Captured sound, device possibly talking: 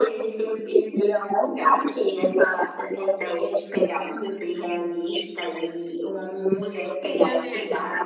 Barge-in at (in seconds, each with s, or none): 7.0 s